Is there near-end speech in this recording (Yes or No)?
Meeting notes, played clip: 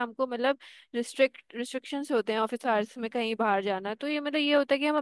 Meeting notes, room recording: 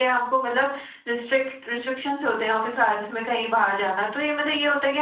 No